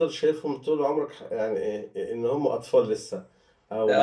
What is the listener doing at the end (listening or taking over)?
listening